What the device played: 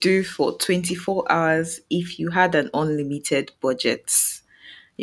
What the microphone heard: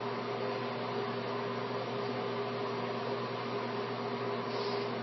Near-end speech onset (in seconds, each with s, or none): none